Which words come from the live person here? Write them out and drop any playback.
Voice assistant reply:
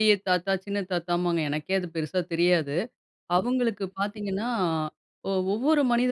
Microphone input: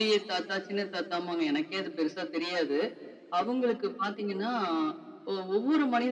none

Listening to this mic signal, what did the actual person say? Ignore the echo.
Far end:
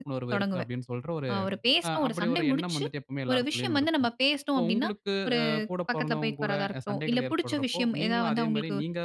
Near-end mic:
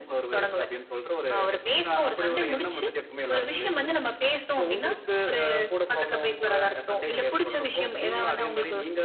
none

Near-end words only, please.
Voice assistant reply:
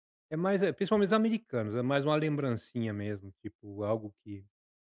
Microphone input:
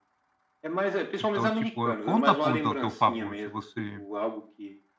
então, tipo, conta pontos ao teu favor, se você

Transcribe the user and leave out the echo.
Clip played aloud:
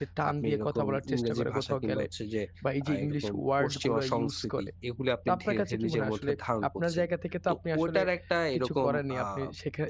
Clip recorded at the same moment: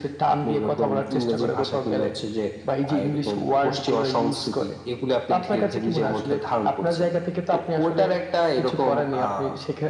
none

